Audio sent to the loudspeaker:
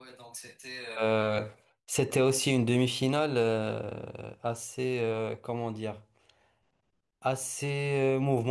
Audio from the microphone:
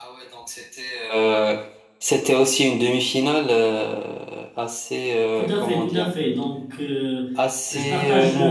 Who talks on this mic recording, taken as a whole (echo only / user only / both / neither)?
both